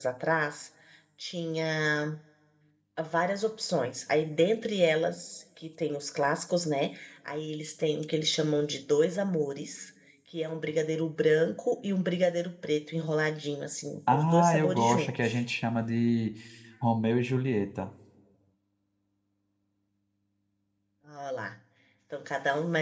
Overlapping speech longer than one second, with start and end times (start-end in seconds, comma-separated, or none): 14.1-15.4